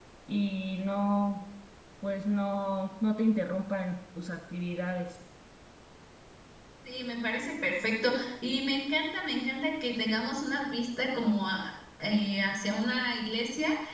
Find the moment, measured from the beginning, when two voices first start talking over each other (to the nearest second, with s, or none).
none